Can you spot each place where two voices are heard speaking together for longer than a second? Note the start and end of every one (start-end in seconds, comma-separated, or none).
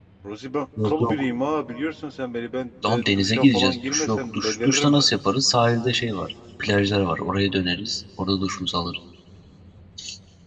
2.8-5.1